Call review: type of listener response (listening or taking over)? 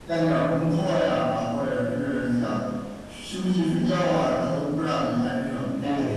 taking over